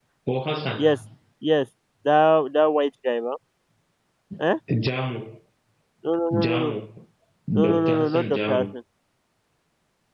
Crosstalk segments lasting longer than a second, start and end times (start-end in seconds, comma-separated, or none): 7.5-8.7